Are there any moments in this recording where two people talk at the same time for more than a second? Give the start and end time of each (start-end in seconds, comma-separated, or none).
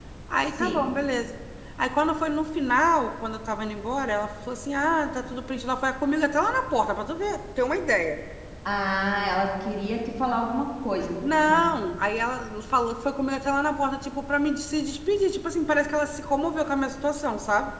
none